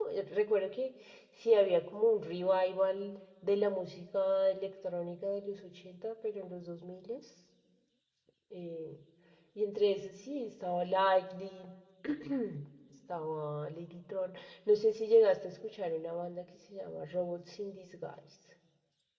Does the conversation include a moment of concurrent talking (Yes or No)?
No